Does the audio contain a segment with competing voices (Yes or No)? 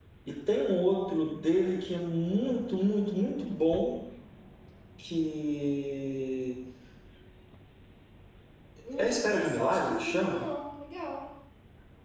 Yes